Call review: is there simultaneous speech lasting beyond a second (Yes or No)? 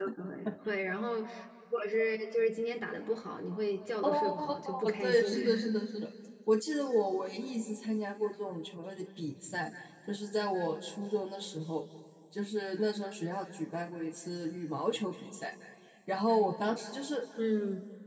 Yes